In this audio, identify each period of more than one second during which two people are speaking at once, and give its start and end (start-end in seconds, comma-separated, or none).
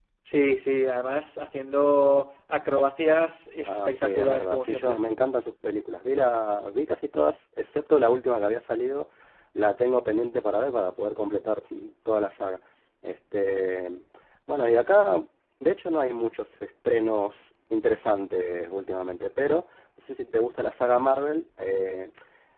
3.6-5.0